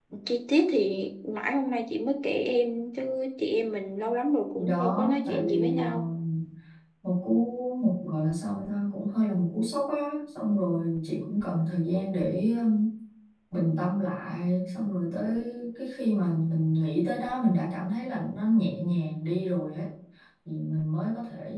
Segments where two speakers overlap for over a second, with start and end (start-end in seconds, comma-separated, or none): 4.6-5.9